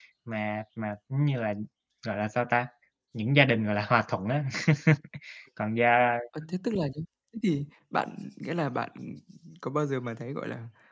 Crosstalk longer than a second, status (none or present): none